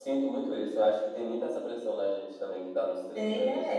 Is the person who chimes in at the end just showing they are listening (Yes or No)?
Yes